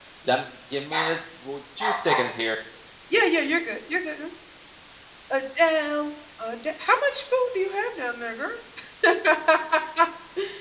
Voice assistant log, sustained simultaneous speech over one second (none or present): none